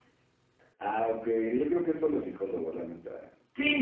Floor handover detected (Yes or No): Yes